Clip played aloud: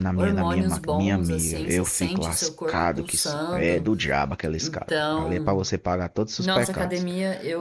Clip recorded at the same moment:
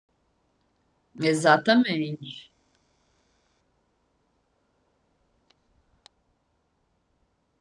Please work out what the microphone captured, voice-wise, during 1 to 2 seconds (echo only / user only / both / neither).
user only